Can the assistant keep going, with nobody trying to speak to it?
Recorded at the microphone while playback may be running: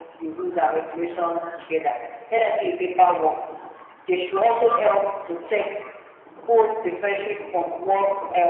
Yes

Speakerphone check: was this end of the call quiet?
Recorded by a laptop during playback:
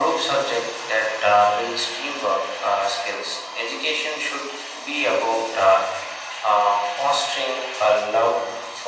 Yes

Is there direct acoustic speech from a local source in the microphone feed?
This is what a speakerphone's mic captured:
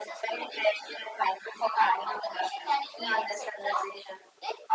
No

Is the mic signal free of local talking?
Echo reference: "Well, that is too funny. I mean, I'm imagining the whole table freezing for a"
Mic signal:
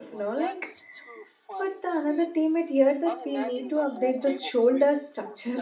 No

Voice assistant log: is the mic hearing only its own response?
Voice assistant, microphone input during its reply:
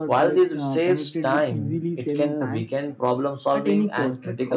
Yes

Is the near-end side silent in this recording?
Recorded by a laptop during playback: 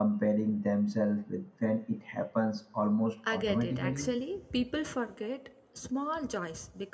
No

